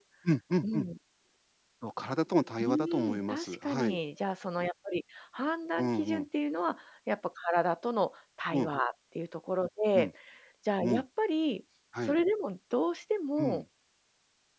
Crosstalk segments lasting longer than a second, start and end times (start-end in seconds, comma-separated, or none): 2.6-4.0